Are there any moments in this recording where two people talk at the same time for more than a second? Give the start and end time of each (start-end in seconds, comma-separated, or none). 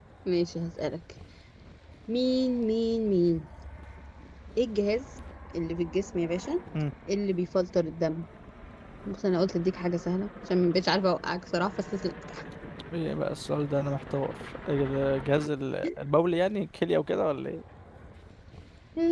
none